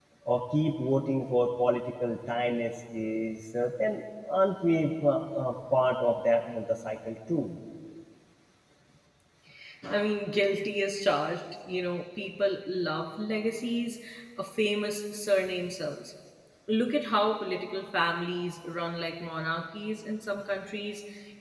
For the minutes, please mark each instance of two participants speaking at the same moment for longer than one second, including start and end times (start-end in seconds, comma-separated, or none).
none